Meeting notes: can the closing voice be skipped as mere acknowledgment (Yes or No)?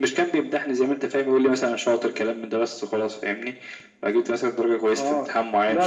No